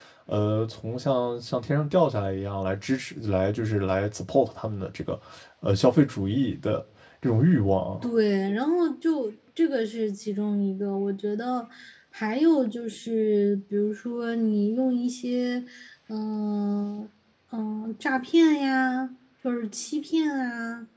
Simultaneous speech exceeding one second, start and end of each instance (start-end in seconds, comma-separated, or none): none